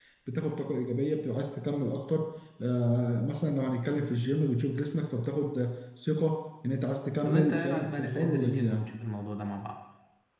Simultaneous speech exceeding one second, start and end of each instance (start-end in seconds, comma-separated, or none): 7.2-8.9